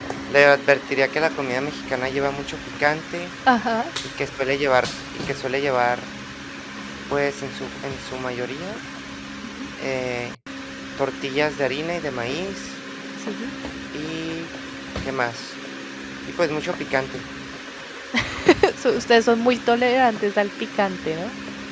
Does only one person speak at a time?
Yes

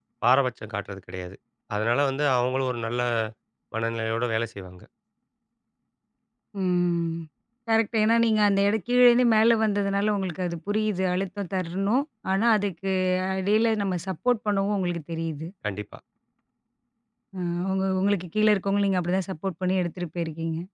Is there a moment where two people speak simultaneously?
No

